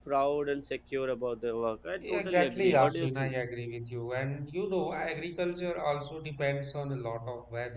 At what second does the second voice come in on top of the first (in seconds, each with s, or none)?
2.0 s